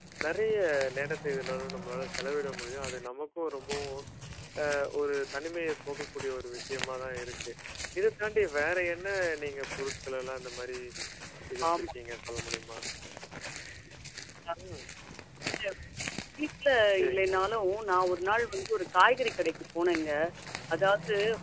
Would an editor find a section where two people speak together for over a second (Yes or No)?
No